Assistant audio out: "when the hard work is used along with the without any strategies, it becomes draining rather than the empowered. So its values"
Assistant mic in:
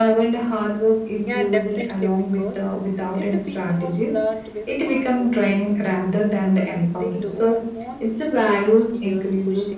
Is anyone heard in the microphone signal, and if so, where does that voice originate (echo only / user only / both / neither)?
both